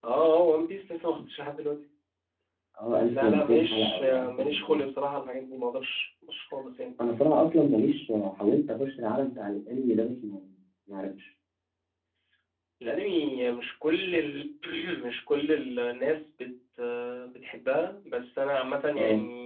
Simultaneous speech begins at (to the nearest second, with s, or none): 3 s